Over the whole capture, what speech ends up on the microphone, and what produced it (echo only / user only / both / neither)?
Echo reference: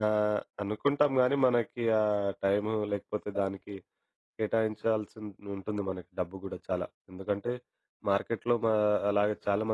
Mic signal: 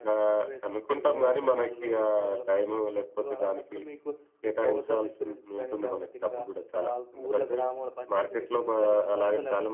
both